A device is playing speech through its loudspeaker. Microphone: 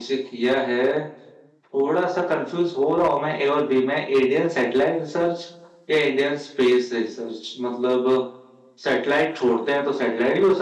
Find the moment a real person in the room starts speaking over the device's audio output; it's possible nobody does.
none

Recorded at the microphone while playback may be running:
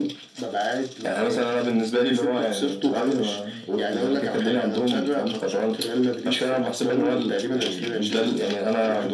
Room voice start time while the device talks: none

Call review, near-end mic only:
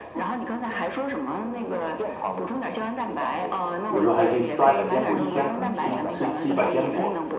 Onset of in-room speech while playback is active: 3.9 s

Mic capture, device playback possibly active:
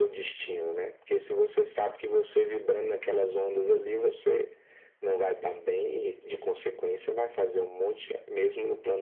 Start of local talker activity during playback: none

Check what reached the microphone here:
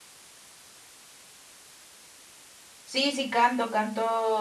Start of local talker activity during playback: 2.8 s

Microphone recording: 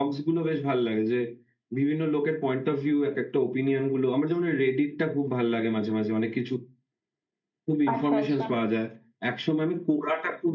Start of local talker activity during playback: 7.9 s

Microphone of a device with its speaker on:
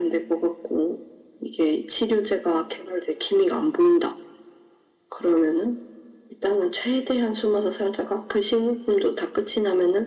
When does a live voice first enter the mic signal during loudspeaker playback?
none

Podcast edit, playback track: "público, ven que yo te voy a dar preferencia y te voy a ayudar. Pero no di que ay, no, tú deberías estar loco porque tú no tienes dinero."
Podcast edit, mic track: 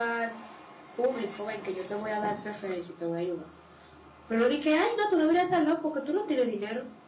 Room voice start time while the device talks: none

